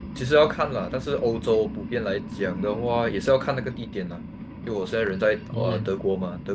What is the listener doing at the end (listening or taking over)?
listening